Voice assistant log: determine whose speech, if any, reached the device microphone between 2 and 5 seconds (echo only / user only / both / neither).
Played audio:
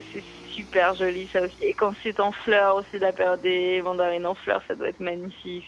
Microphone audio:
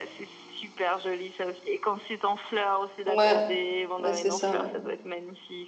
both